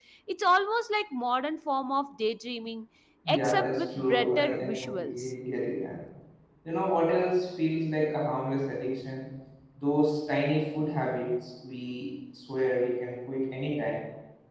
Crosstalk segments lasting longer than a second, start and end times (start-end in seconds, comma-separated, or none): 3.3-5.3